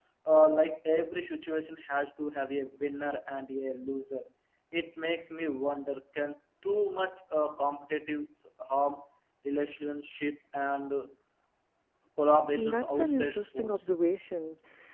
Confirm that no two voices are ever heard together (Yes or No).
No